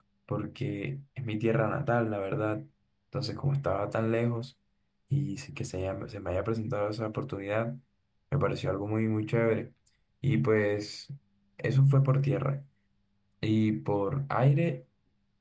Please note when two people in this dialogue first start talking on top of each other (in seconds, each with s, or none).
none